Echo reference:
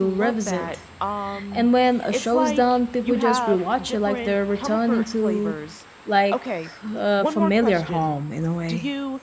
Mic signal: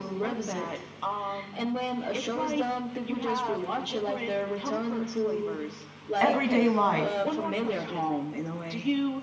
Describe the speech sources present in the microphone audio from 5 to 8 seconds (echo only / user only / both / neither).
both